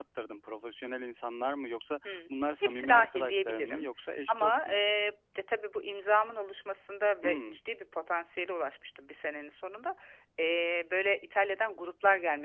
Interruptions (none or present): present